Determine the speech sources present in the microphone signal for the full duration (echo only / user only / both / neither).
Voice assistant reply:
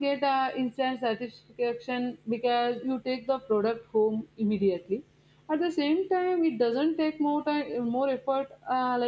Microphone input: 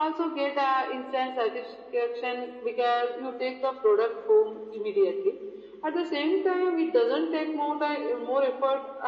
echo only